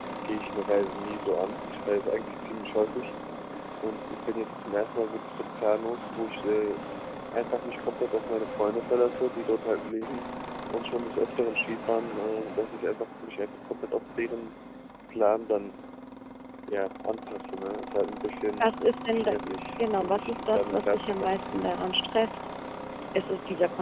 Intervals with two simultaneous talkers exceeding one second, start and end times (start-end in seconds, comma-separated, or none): 19.8-21.3